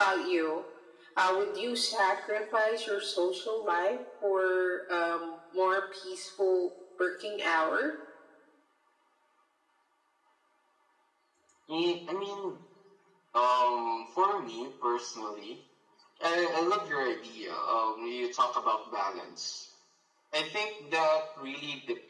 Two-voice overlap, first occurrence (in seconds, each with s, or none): none